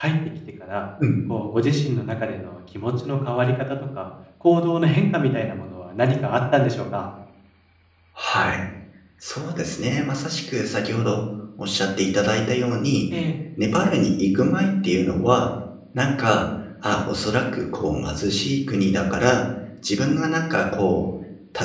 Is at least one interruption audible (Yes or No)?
No